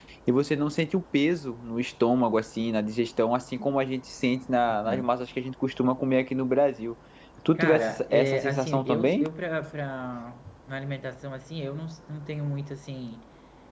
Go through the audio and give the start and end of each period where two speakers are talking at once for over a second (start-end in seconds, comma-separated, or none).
7.5-9.2